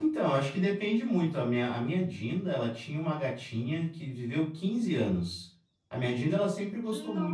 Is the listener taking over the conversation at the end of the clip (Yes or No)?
No